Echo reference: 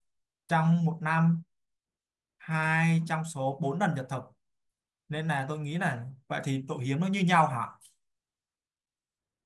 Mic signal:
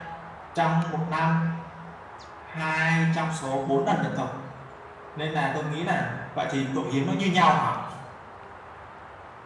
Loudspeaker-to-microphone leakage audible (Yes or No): Yes